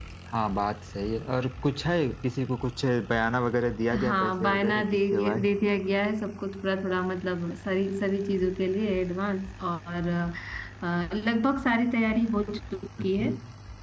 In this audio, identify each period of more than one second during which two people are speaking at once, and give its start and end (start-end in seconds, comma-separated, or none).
4.0-5.5